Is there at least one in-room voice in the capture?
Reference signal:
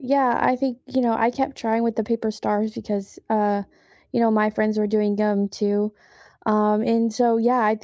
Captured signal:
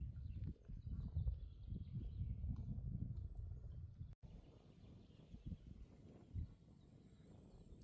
No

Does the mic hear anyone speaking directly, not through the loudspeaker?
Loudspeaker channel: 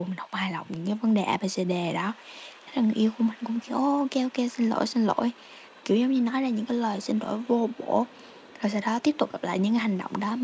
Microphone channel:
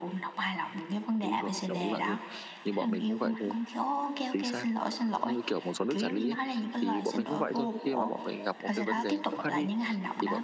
Yes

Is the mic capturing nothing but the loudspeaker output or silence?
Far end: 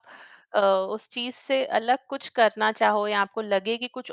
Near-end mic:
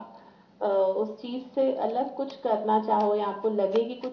Yes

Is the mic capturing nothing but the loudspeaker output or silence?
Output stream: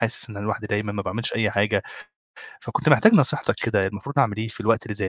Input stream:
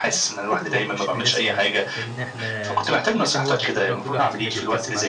No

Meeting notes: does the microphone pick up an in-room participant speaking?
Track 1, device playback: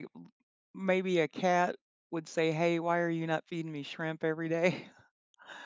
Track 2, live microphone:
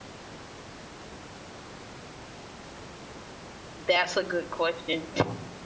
Yes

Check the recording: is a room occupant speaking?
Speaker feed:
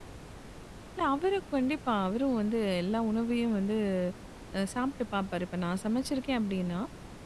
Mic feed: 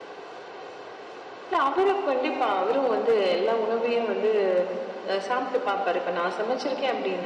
No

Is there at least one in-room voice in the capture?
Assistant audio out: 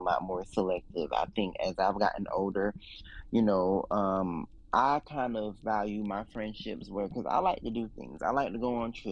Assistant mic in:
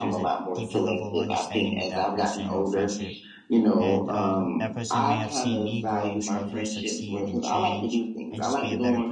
Yes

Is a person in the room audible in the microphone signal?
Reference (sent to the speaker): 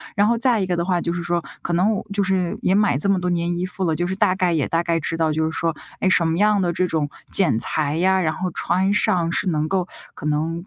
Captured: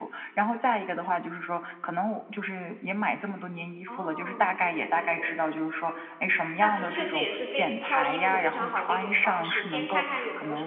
Yes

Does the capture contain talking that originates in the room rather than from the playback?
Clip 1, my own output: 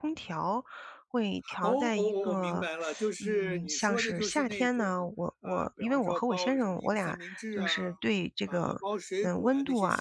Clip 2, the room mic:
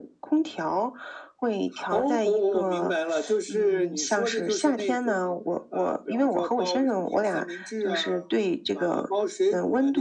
No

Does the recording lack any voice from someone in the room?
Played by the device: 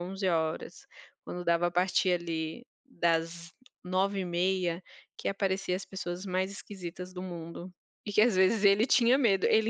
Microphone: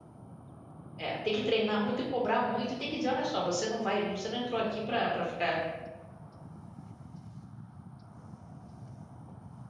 No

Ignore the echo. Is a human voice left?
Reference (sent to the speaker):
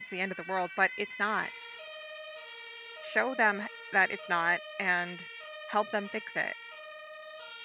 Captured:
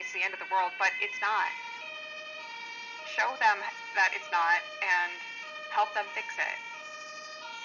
No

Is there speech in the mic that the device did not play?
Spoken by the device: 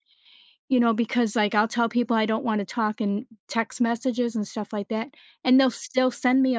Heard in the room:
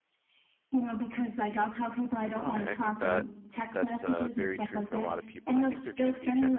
Yes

